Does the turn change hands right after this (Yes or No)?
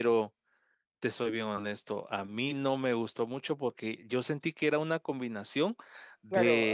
Yes